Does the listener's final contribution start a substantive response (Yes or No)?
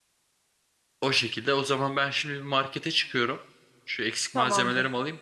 No